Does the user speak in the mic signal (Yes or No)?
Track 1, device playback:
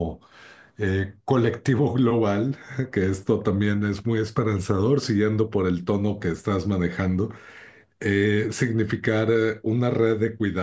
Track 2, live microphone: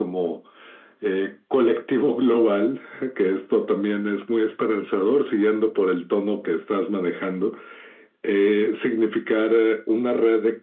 No